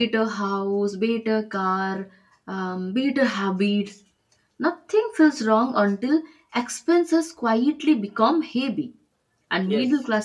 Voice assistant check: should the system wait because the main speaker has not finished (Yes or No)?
Yes